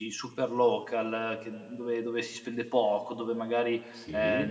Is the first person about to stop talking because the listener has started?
No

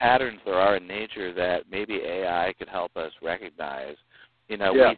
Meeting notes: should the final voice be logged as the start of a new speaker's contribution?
No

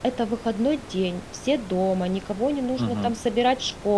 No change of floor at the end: Yes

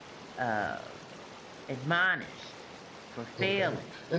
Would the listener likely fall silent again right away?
No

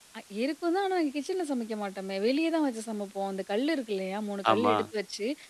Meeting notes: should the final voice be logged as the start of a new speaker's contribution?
No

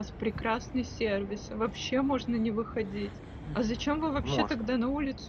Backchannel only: Yes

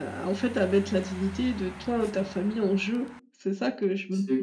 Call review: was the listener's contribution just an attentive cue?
No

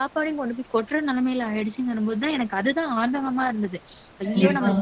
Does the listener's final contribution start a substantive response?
Yes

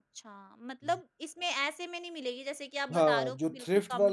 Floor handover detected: Yes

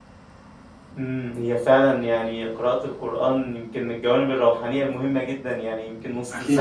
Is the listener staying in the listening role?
Yes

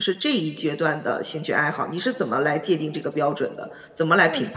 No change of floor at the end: No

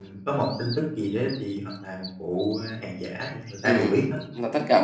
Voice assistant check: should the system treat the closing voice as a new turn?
Yes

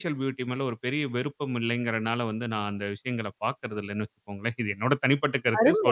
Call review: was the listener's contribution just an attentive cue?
No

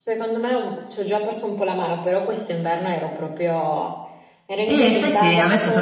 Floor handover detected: Yes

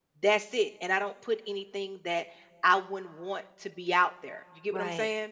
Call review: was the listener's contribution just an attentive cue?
No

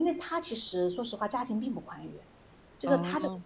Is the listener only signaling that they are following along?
Yes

